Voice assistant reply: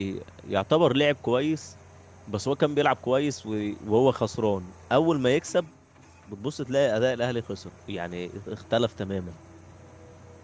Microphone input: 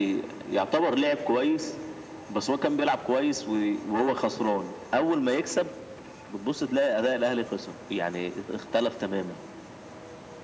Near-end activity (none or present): none